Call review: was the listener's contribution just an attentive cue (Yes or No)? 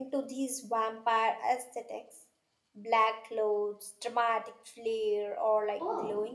No